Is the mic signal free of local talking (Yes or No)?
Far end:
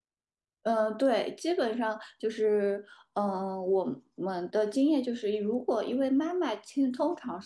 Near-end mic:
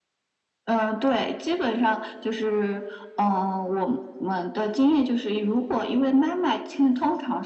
Yes